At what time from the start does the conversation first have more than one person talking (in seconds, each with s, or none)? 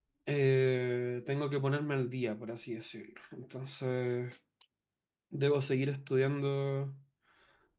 none